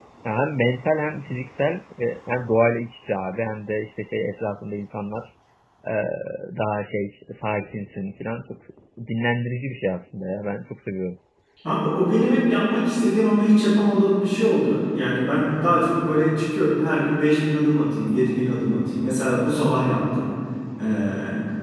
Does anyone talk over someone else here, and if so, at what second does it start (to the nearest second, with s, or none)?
none